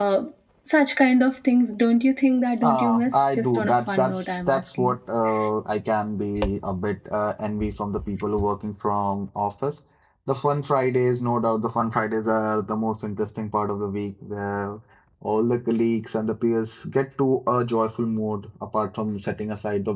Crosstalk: present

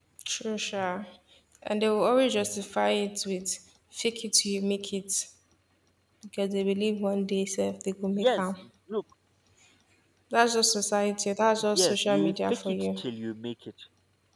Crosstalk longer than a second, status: present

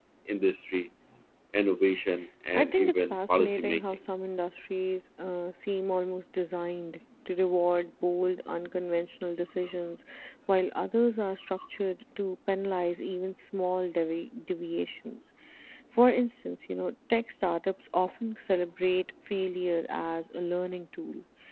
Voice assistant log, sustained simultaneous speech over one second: present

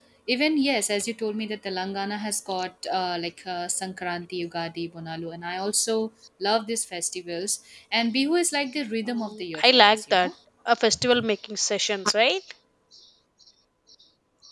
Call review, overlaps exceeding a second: present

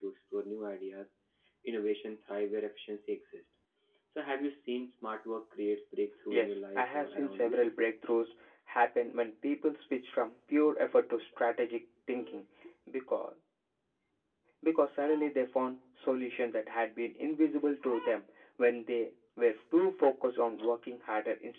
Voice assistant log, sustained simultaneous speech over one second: present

